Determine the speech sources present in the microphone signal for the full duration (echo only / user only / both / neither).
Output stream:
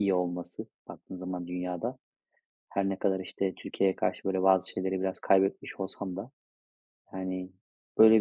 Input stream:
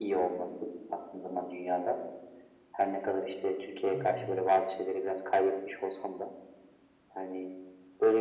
both